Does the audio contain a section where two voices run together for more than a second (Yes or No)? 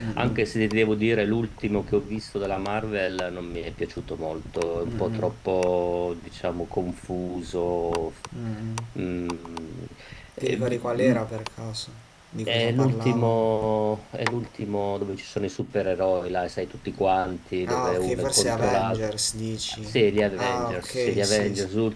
Yes